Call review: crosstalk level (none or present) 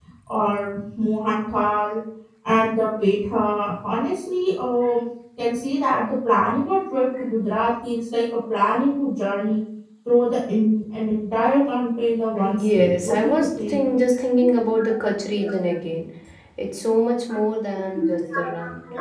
present